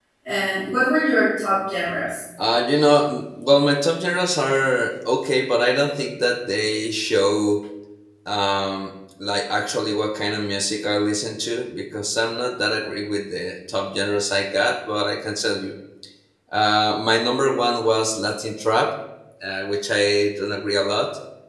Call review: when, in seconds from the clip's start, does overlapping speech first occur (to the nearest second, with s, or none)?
none